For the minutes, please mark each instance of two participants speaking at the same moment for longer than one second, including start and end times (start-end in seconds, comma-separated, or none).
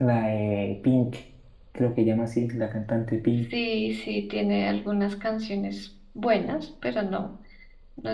none